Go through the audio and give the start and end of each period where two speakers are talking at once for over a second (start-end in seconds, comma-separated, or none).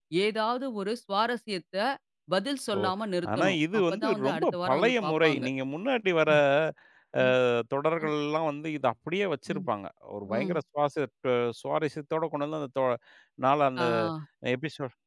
3.4-5.5